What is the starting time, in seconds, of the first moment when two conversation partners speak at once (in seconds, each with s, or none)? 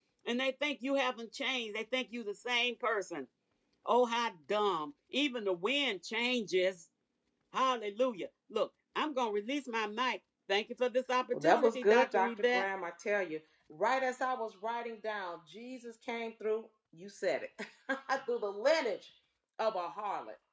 11.3 s